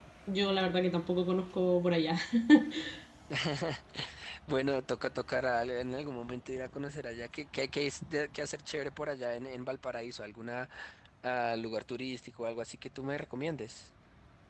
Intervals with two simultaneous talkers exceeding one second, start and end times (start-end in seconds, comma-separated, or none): none